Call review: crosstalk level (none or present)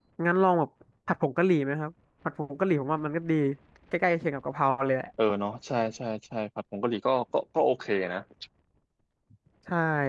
none